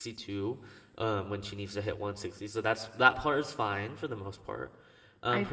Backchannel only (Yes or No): Yes